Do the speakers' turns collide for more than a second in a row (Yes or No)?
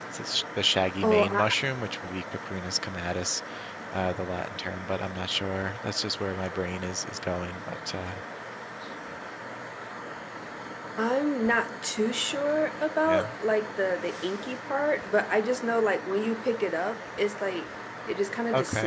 No